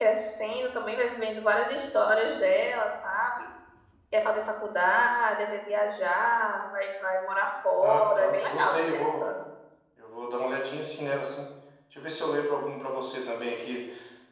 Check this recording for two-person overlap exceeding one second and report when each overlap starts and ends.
7.8-9.2

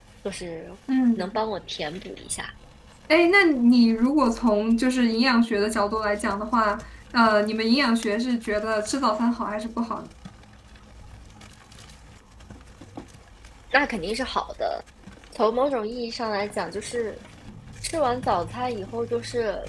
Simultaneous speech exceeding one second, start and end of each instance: none

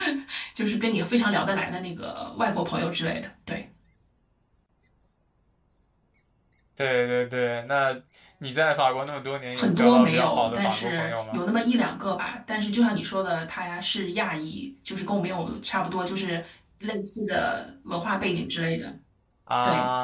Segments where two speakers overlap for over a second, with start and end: 9.6-11.4

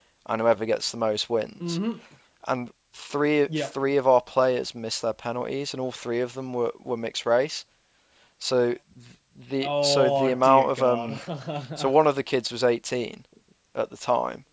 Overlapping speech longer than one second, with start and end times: 9.6-11.2

